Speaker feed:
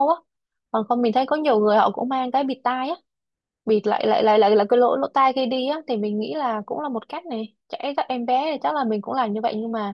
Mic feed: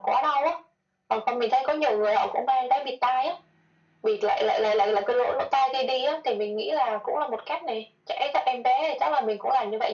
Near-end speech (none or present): none